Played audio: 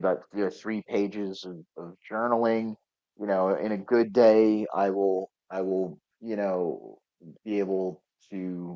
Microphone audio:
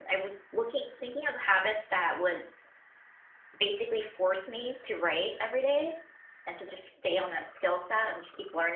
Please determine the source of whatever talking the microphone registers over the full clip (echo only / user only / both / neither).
user only